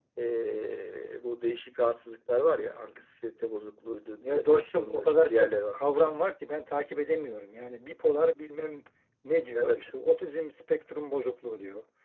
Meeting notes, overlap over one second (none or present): present